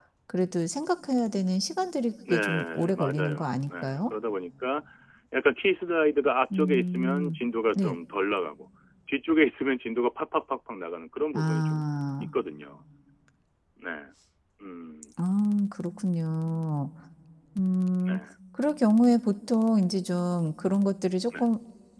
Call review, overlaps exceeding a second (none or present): present